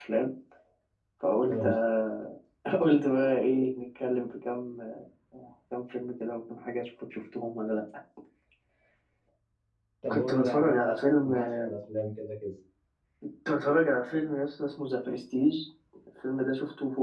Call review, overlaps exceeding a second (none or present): present